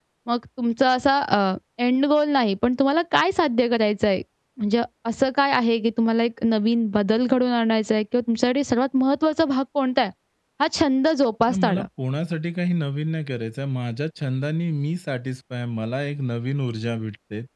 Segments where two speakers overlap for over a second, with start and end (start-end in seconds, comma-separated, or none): none